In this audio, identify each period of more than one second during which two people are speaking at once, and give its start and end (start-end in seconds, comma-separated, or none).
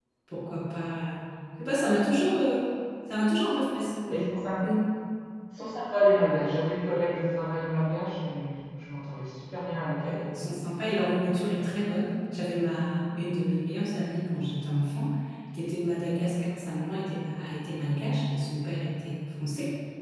none